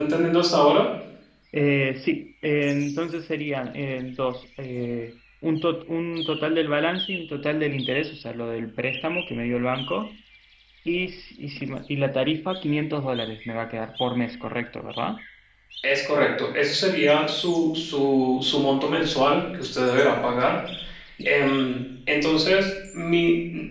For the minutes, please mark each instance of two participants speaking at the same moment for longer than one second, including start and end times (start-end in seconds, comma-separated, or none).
none